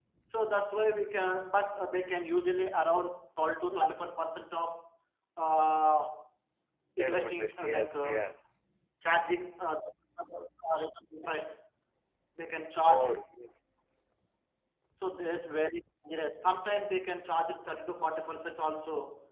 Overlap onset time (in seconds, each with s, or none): 7.0 s